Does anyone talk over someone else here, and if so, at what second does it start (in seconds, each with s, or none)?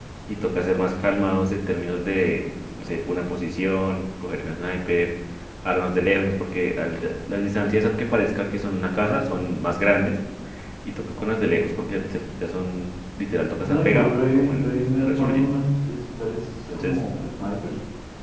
13.6 s